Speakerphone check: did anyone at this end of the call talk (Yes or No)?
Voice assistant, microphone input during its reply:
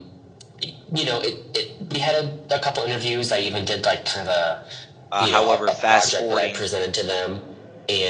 Yes